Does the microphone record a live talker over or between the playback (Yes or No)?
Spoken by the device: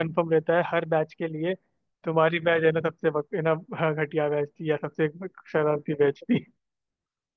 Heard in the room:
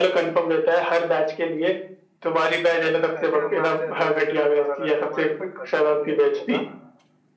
Yes